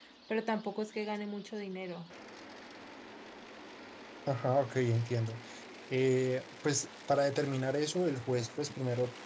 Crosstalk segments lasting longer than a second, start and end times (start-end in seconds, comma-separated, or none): none